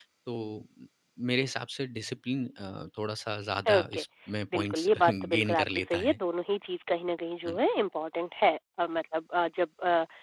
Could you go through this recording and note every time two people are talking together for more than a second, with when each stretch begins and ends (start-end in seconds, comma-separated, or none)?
4.5-6.2